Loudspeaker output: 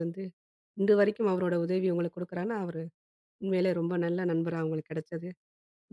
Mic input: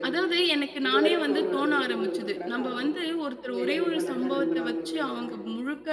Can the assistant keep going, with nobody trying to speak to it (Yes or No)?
No